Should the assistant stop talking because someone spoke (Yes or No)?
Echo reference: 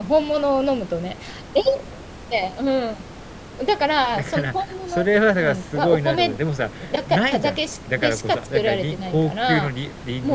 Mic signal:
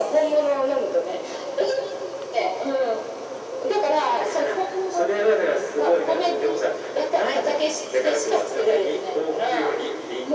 Yes